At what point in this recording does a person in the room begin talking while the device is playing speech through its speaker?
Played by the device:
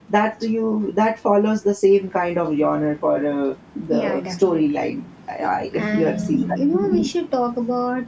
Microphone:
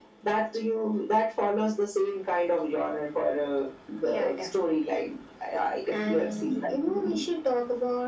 none

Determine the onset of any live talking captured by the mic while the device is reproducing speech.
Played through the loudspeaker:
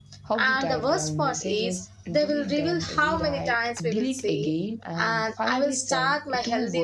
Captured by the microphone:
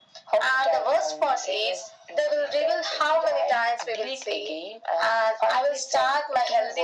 none

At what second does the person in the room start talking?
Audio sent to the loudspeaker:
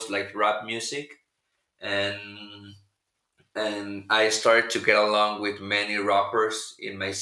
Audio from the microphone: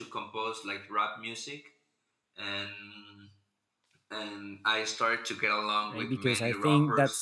5.9 s

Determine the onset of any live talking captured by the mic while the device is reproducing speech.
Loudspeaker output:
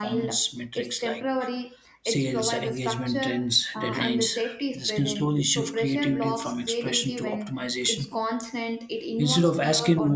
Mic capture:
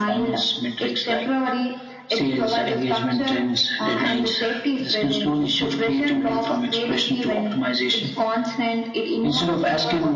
none

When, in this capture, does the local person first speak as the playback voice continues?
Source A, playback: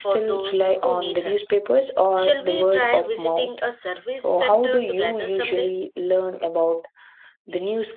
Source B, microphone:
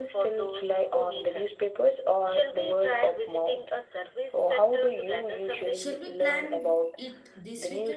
5.7 s

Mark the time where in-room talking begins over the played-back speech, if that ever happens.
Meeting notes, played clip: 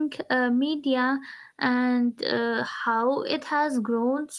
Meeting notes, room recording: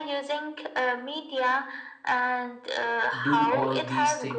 3.2 s

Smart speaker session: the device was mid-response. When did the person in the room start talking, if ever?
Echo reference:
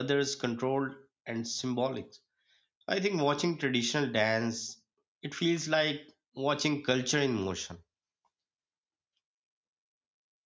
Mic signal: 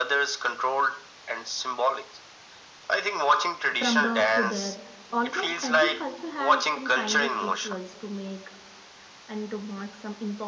3.7 s

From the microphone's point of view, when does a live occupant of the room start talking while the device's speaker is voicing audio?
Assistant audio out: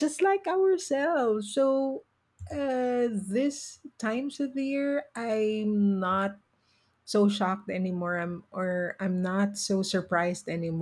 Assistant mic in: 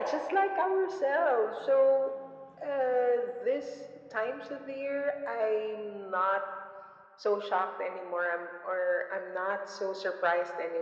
none

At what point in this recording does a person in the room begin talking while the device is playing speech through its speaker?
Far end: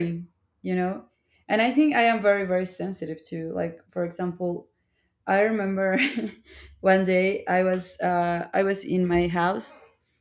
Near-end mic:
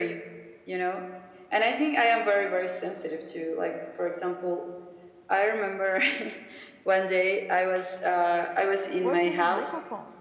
9.0 s

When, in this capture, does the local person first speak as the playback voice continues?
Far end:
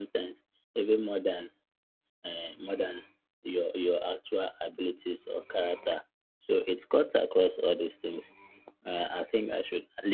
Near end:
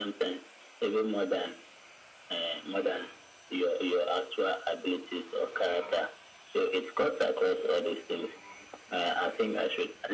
none

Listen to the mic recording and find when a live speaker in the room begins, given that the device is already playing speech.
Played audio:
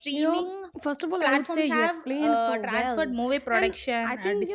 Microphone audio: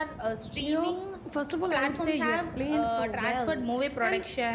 none

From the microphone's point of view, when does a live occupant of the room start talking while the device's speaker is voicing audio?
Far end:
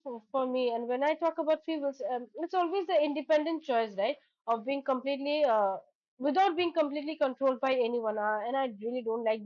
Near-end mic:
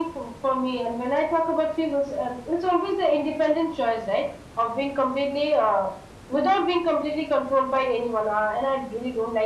none

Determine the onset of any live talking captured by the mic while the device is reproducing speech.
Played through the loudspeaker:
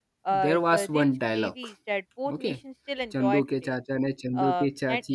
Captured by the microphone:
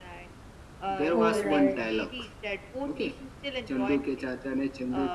1.1 s

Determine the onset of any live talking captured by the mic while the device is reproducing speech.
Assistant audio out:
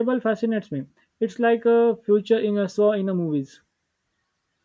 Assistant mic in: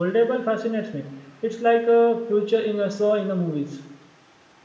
none

